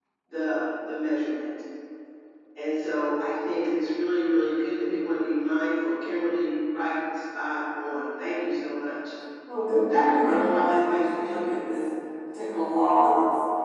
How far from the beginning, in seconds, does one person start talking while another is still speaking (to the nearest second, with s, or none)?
10 s